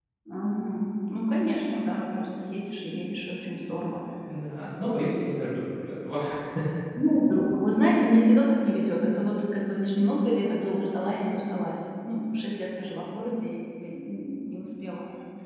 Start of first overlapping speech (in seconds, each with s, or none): none